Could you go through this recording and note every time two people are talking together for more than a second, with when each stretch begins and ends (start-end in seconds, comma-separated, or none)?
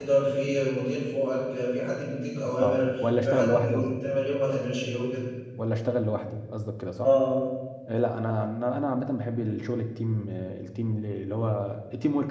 2.6-4.0